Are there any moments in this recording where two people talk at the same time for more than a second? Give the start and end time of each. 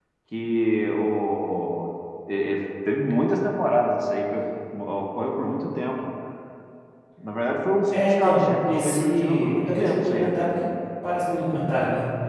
7.9-10.5

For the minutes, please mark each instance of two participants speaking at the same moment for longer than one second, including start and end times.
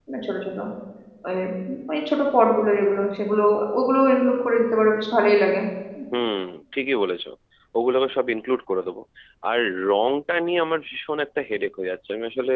none

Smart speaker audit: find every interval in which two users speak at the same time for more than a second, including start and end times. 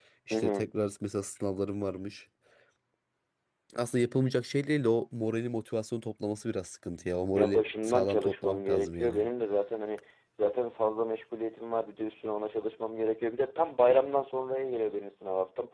7.3-9.2

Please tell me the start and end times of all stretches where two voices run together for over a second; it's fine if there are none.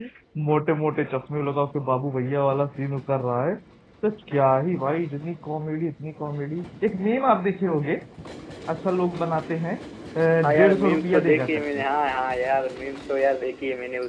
10.4-11.8

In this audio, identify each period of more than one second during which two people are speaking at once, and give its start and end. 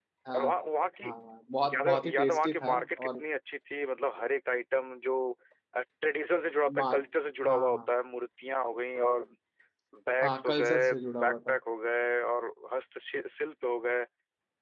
1.7-3.2, 10.2-11.6

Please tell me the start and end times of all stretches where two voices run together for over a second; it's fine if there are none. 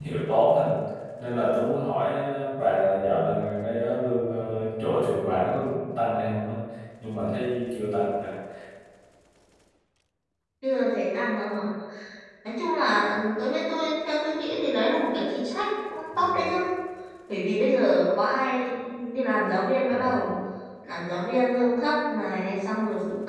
none

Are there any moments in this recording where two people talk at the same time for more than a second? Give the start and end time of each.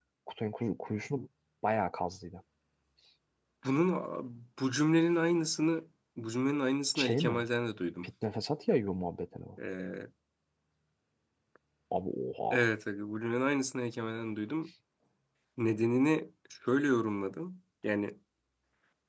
none

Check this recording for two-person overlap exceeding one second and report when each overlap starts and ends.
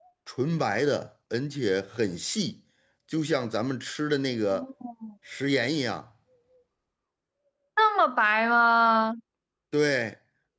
none

